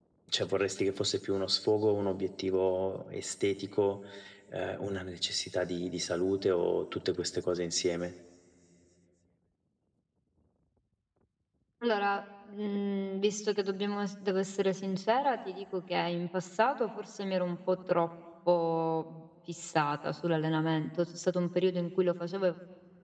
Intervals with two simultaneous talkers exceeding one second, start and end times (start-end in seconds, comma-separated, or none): none